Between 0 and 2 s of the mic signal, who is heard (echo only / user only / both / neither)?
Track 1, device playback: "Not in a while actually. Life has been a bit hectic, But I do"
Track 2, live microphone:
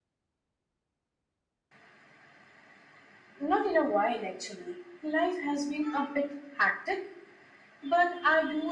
neither